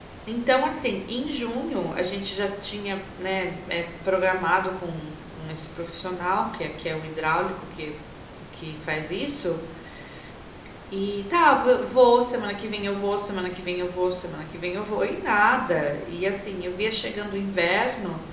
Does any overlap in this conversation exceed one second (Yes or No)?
No